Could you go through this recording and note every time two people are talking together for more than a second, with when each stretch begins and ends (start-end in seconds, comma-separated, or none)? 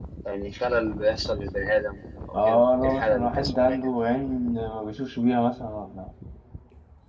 2.4-3.8